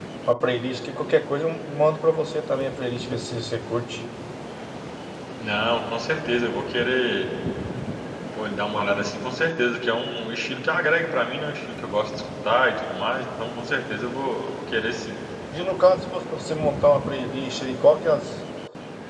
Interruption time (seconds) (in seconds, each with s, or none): none